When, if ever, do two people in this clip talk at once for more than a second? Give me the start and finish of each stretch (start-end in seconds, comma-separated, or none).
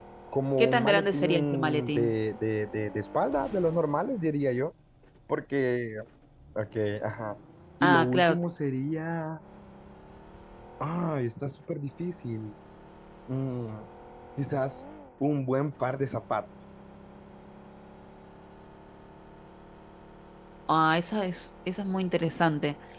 0.6-2.1